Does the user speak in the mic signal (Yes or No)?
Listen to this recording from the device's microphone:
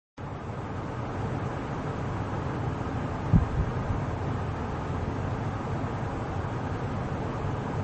No